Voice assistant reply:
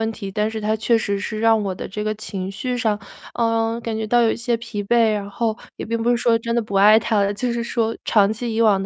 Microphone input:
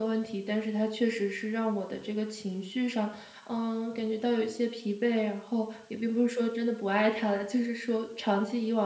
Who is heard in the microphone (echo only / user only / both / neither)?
echo only